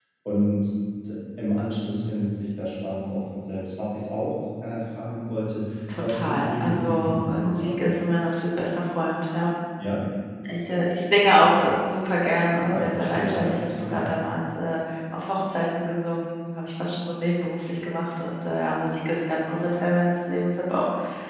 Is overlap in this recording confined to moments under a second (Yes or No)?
No